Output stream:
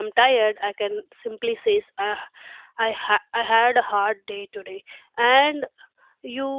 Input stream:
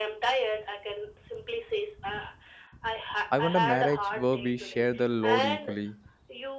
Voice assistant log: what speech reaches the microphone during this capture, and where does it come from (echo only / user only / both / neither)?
both